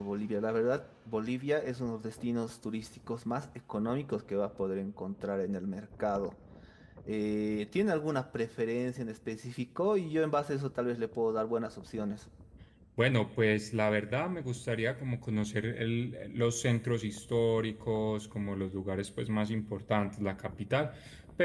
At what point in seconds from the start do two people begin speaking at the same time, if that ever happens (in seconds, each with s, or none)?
none